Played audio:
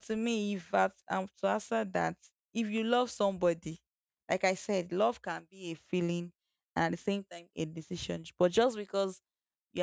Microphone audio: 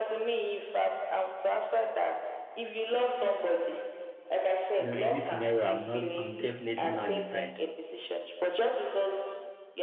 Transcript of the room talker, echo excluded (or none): You know, in this scenario, I'm not. I'm definitely not different.